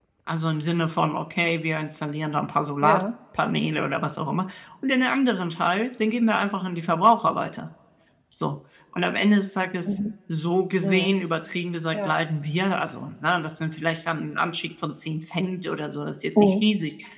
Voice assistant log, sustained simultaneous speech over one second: none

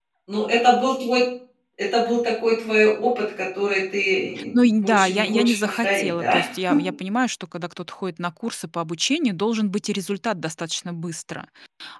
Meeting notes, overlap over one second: present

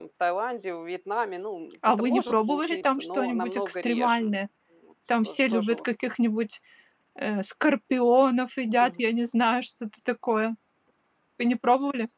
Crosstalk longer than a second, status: present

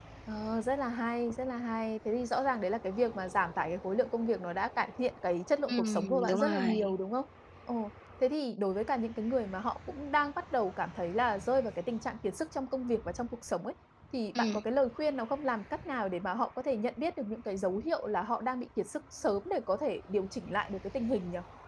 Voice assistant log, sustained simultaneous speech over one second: present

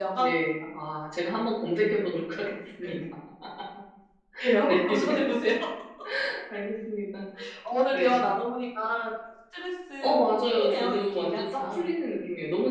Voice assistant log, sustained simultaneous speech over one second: present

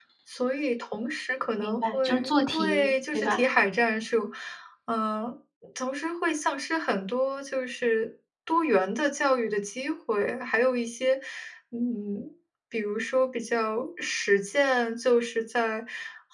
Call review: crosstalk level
present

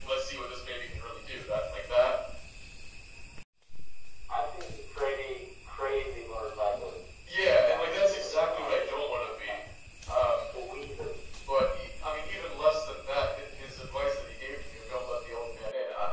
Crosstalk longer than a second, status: present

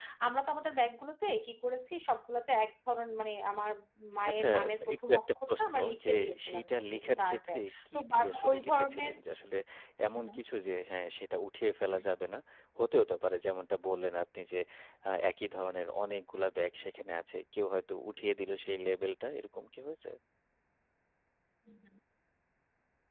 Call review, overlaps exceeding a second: present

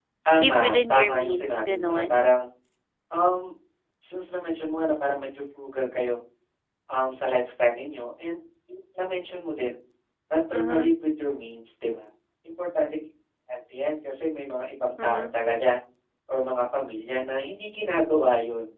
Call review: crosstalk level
present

